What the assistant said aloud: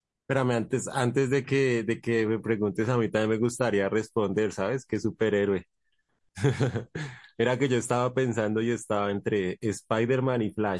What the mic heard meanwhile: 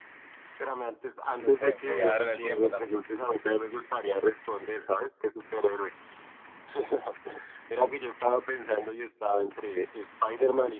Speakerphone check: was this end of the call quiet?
No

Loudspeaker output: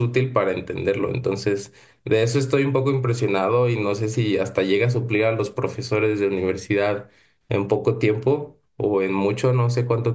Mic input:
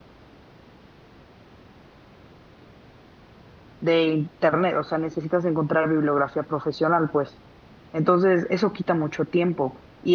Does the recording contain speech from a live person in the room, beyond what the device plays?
Yes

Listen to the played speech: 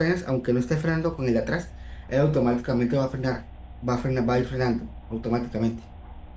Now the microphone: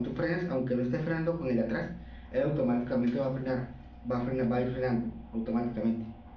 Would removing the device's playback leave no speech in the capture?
Yes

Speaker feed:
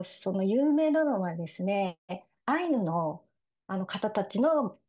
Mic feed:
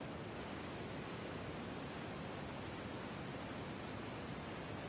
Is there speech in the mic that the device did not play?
No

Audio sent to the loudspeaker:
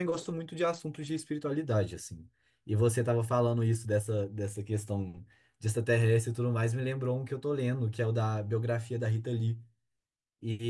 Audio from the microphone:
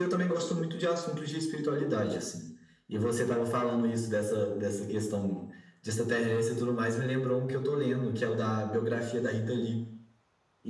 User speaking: No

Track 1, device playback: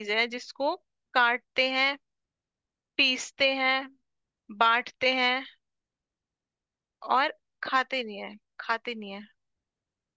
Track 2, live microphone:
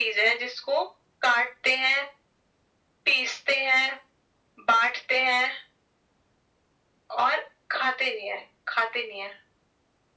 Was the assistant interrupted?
No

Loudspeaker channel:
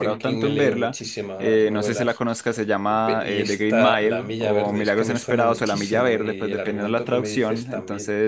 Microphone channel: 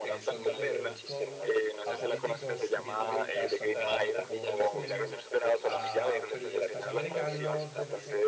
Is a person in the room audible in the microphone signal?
Yes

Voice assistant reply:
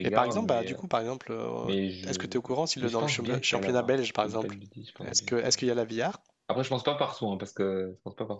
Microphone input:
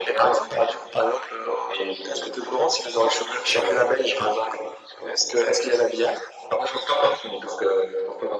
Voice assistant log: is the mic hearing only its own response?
Yes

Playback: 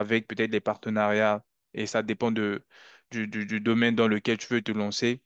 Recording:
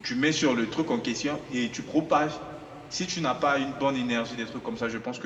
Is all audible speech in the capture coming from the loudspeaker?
No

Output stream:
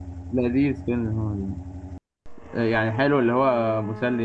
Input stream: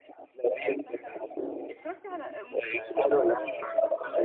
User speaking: Yes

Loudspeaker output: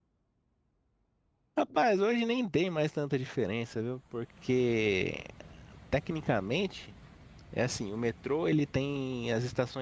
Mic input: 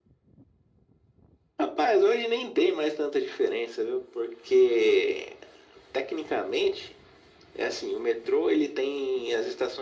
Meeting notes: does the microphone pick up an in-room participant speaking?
No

